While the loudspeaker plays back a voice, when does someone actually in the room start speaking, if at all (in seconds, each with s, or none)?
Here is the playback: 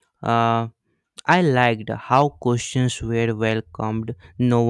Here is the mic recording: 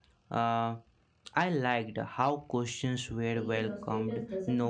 3.3 s